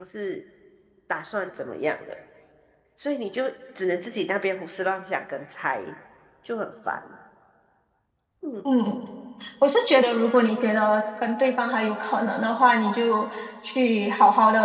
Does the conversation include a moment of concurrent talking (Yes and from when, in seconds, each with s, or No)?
No